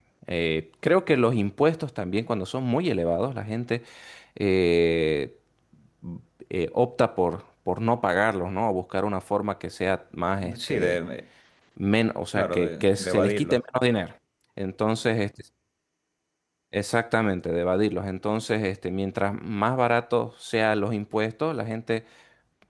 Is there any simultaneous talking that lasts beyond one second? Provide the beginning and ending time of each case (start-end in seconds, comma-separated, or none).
12.4-13.6